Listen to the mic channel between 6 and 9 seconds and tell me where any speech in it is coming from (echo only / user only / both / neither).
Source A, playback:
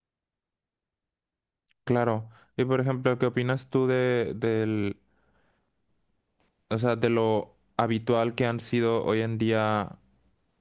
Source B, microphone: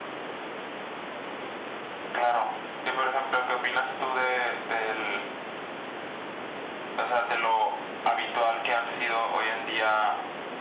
echo only